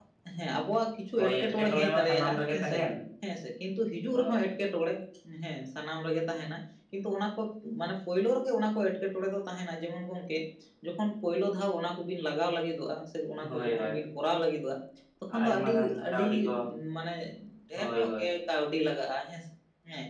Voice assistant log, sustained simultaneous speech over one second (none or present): present